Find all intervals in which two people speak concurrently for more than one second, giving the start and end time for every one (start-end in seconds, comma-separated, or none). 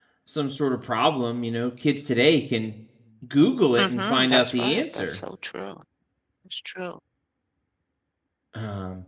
3.8-5.2